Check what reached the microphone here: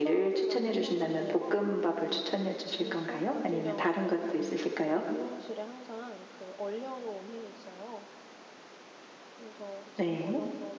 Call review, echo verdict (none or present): present